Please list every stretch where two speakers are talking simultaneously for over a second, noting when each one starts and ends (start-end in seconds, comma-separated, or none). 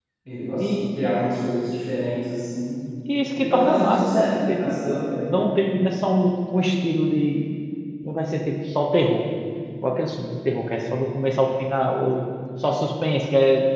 3.3-5.3